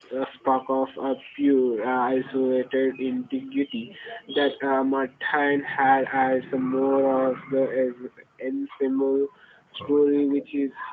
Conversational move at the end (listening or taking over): listening